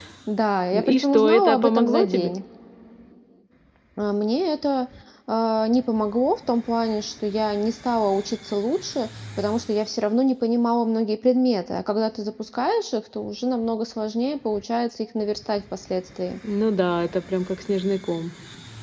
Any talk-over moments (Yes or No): Yes